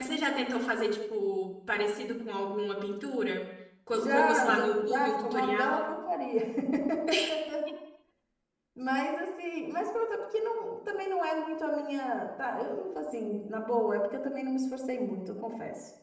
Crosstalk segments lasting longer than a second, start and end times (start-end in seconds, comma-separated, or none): 3.9-5.9